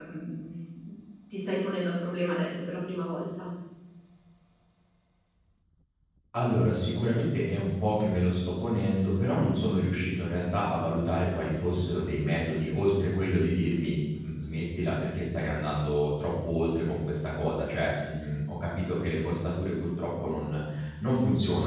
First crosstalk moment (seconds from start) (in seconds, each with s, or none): none